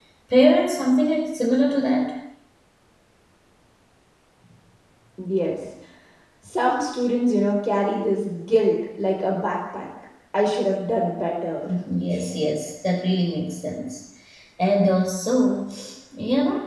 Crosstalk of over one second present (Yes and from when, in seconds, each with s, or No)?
No